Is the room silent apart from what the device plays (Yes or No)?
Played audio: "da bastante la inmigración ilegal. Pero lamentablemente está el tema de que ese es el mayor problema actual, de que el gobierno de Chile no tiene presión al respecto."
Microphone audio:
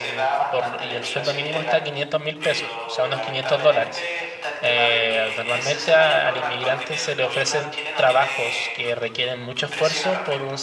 No